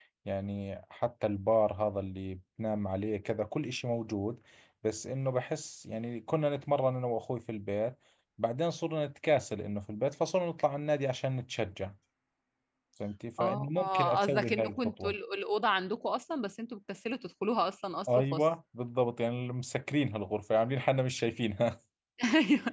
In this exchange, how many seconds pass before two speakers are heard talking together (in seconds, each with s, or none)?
13.4 s